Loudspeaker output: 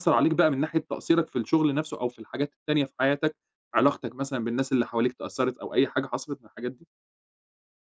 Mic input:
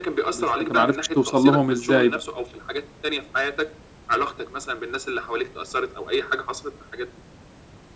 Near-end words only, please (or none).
بس أنت ما عرفتش توصل لهم إزاي بقى.